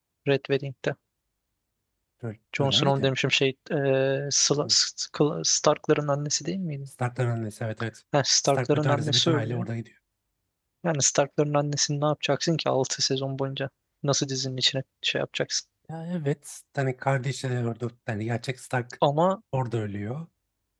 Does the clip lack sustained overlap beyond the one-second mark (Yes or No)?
No